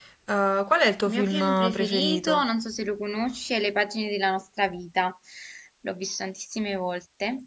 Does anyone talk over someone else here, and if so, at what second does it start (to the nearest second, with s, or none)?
1 s